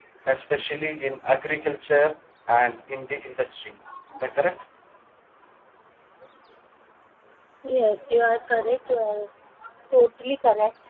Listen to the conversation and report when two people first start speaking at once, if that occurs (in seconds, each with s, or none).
none